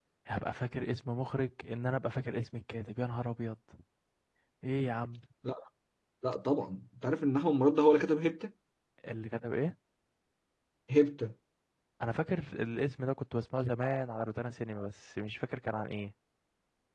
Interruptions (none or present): none